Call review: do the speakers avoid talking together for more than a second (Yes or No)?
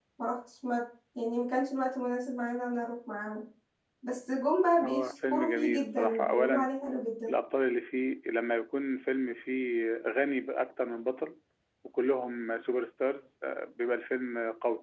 No